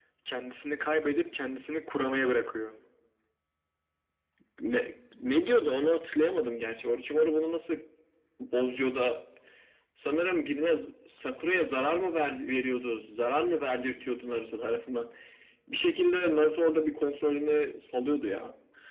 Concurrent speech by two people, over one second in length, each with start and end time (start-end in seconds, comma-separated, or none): none